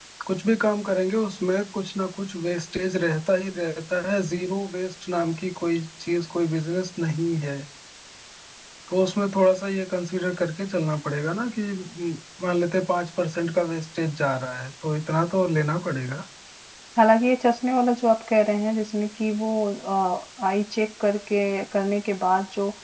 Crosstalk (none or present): none